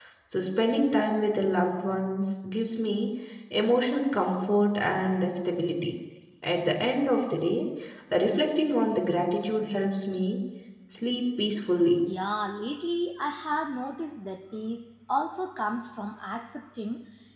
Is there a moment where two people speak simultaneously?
No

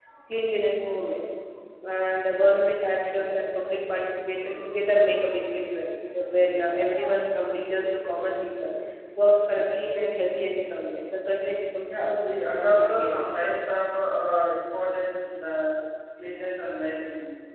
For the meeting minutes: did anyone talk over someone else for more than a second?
Yes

